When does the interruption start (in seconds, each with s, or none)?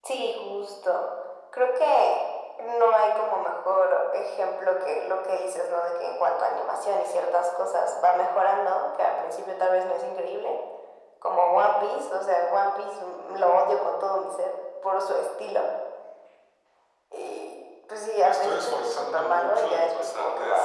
18.2 s